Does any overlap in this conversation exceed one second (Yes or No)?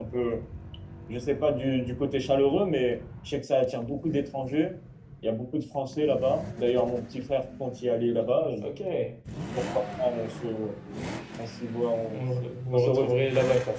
No